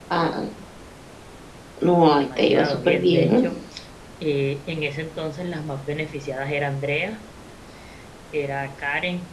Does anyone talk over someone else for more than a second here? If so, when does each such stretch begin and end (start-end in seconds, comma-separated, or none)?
2.2-3.4